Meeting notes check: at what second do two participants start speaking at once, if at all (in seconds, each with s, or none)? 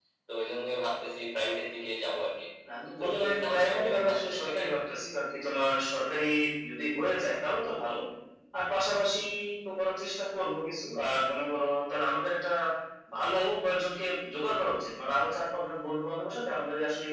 3.0 s